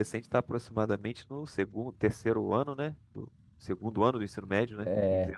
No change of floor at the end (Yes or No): No